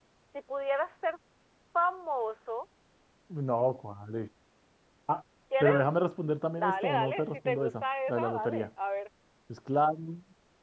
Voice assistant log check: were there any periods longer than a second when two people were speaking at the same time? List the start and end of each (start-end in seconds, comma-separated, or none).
6.6-8.7